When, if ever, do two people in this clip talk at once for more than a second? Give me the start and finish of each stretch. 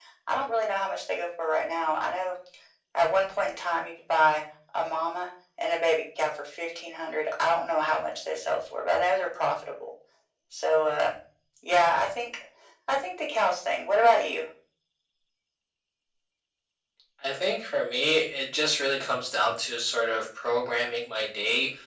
none

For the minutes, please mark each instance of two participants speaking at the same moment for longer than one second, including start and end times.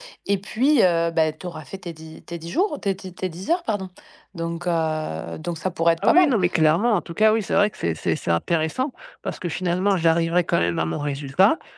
none

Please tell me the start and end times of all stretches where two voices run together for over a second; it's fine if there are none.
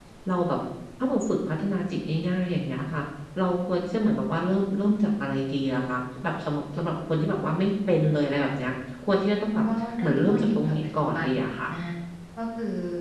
10.0-11.3

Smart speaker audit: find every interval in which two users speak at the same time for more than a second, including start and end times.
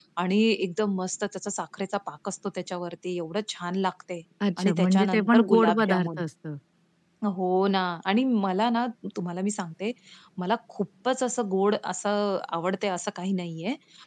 4.6-6.2

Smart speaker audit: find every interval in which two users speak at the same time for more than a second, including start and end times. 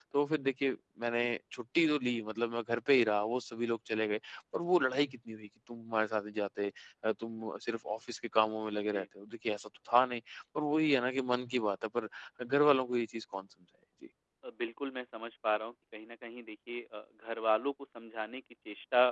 none

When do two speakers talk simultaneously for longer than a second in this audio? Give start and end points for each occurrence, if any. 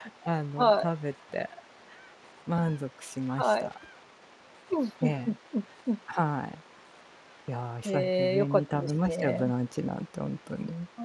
7.9-9.5

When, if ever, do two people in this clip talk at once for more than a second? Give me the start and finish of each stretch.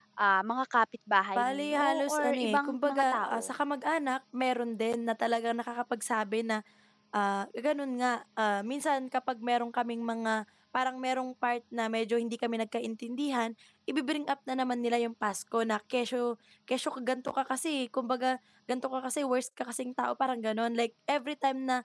1.4-3.4

